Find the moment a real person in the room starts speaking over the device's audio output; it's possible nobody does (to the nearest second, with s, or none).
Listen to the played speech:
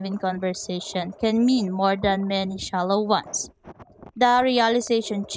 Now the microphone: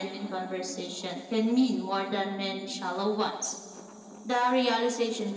none